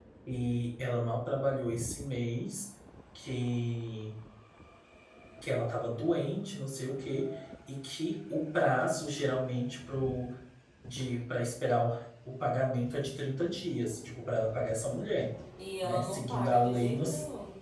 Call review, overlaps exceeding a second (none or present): present